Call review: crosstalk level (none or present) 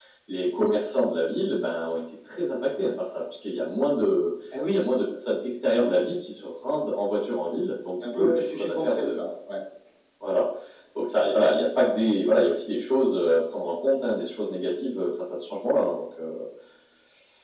present